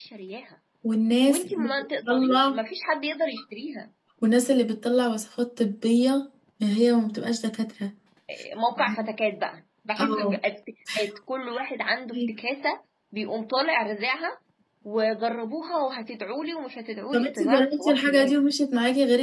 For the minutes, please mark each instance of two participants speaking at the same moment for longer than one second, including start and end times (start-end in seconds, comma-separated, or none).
1.3-2.6, 17.1-18.4